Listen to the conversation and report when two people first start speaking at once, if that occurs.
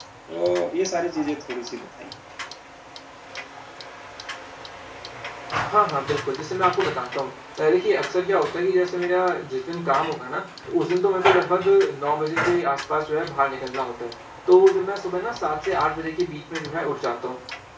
none

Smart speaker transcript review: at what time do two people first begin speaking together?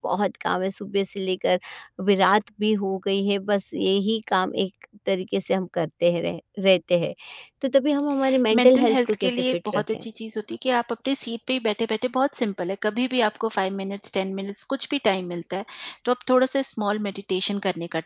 8.5 s

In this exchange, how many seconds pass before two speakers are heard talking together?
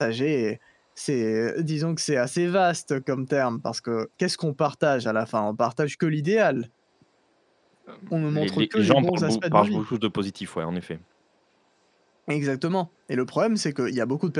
8.3 s

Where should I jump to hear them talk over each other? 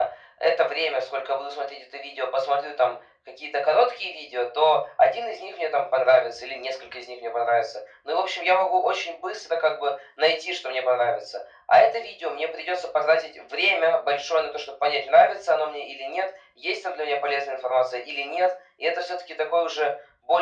none

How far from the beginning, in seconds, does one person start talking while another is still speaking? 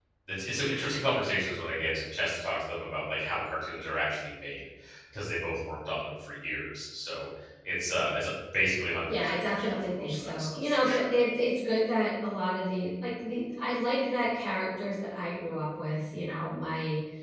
9.1 s

